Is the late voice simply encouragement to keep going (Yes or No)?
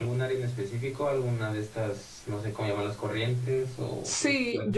No